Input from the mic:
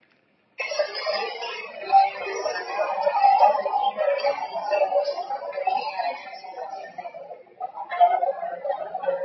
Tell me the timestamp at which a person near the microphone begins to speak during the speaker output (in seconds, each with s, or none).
none